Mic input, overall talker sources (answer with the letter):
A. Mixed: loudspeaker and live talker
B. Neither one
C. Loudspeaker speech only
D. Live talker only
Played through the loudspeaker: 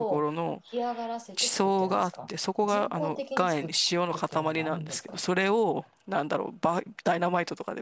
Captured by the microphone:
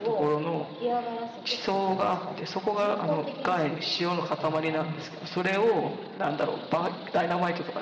C